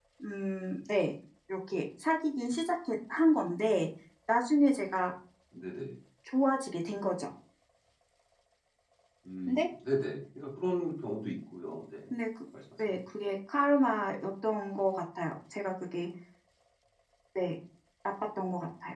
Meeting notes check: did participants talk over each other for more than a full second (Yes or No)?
No